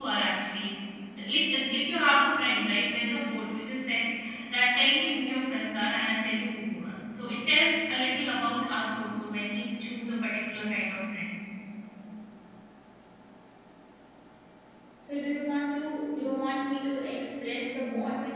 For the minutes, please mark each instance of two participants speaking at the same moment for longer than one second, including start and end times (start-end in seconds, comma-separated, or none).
none